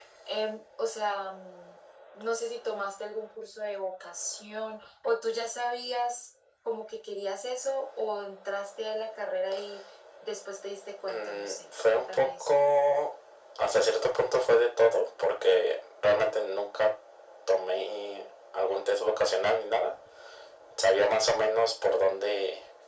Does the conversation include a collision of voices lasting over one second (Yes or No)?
Yes